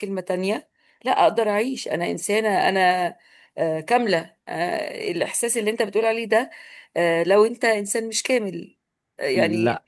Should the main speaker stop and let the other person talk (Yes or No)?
No